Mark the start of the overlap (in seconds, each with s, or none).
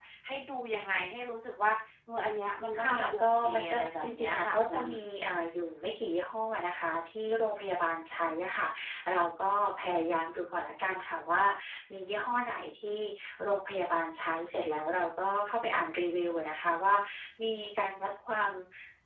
2.7 s